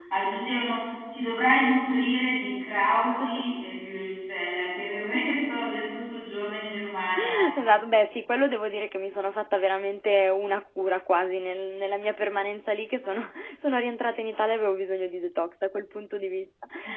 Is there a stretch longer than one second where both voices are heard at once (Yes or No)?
No